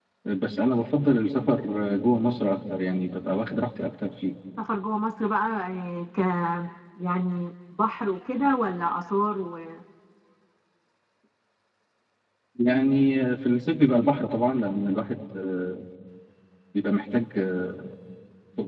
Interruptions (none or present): none